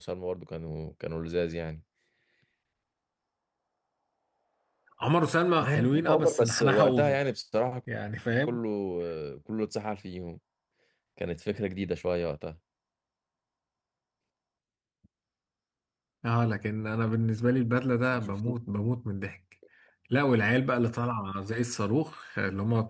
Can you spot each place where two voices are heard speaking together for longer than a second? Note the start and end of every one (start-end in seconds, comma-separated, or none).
5.6-7.2